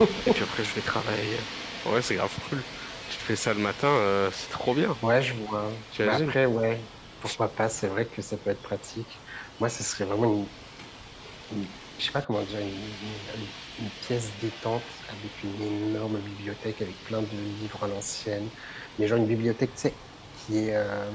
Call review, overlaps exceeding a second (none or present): none